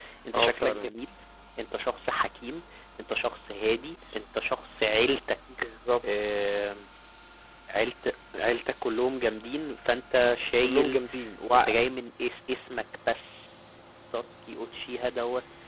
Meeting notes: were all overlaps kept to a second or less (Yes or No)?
Yes